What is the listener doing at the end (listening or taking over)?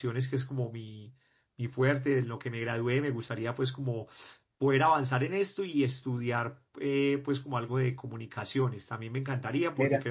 listening